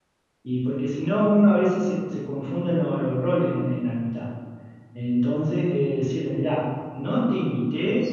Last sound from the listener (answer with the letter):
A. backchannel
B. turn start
B